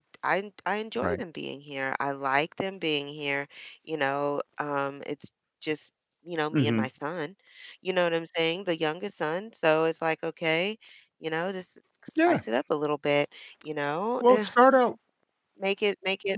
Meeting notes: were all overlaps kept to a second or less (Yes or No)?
Yes